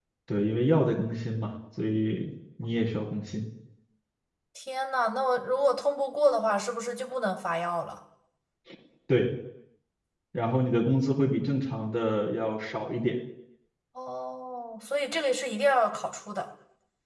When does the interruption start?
none

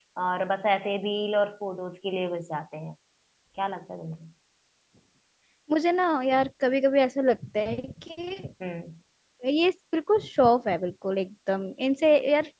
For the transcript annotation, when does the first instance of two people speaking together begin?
none

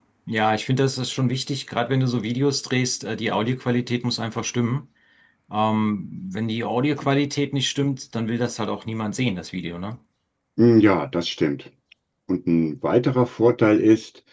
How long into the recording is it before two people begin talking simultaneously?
none

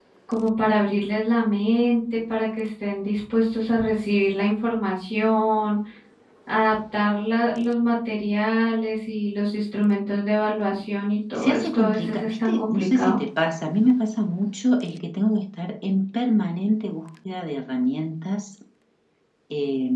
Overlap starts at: 11 s

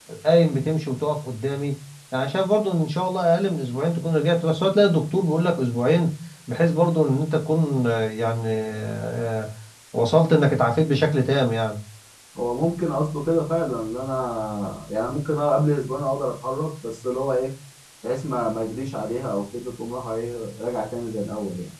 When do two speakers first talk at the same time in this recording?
none

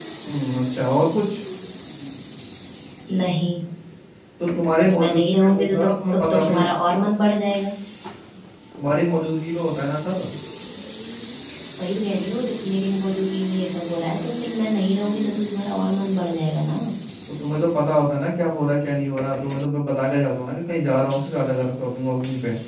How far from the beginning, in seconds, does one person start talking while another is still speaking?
5 s

